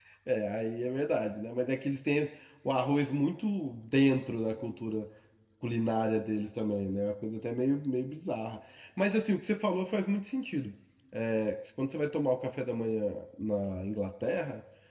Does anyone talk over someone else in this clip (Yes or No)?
No